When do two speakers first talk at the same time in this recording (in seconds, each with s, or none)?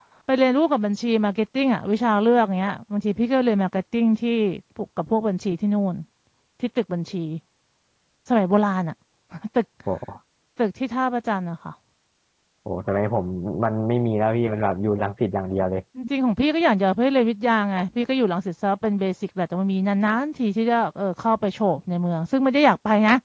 none